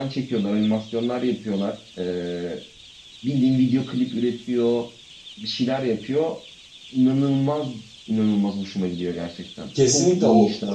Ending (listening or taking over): taking over